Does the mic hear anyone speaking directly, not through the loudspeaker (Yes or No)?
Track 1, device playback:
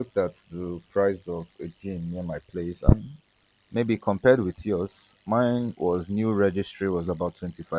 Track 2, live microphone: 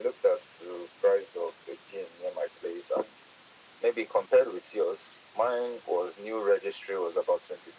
No